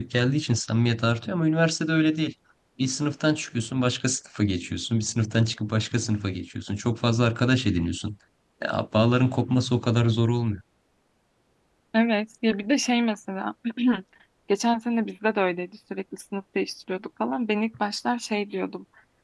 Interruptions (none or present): none